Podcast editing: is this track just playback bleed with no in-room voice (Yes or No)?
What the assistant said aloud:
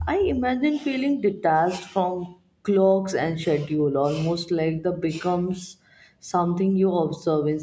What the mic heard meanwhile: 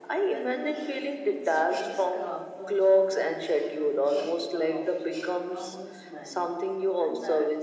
No